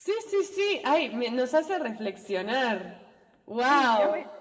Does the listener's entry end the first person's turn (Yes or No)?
Yes